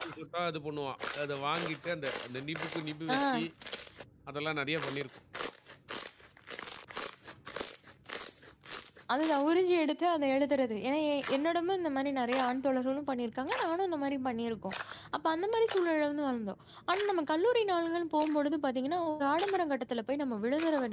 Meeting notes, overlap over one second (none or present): none